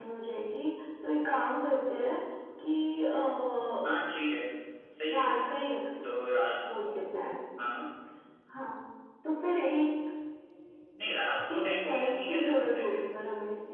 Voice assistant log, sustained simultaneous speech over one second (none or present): present